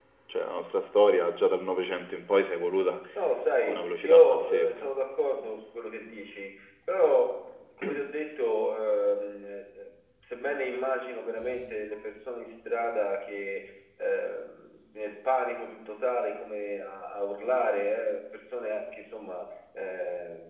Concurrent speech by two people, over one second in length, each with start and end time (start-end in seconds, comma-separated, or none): 3.6-4.9